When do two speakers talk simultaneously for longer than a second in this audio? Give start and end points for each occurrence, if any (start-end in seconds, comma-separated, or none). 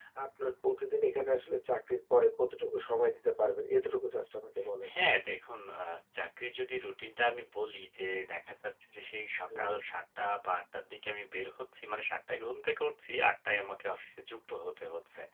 none